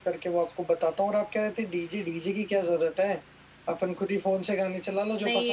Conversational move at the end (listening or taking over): taking over